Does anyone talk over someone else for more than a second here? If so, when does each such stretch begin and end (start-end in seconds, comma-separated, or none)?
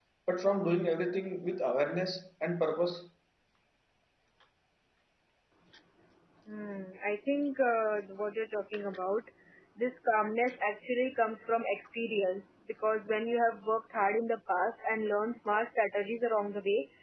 none